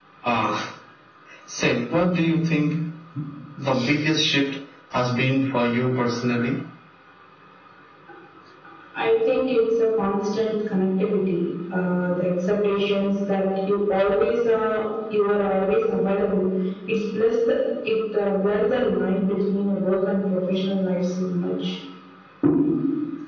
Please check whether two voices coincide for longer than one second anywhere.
No

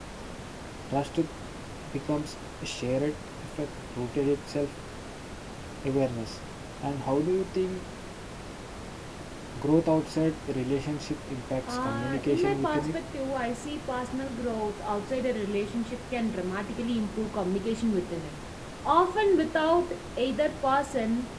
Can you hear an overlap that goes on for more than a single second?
Yes, from 11.6 s

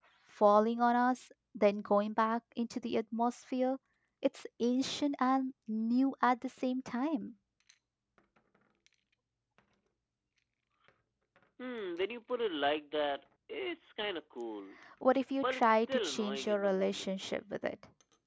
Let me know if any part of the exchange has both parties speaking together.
Yes, from 15.4 s

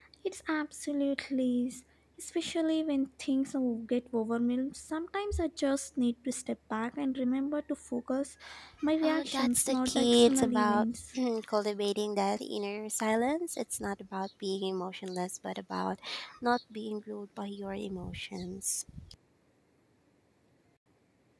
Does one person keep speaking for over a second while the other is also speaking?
Yes, from 9.0 s

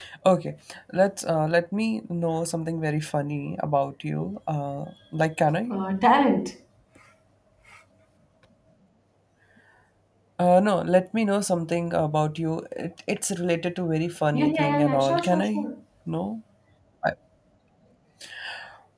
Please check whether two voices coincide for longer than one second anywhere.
Yes, from 14.3 s

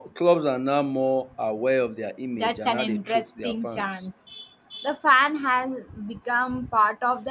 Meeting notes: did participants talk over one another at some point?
Yes, from 2.4 s

